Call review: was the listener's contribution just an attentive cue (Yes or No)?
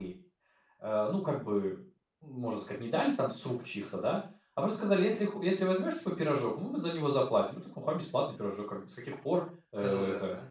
Yes